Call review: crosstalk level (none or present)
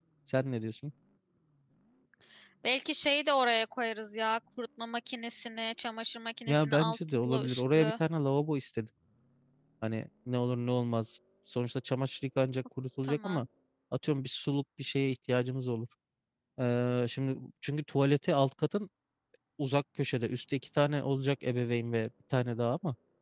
present